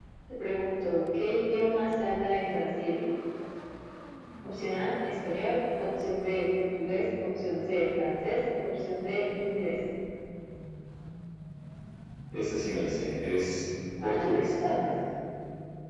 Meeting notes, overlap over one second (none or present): none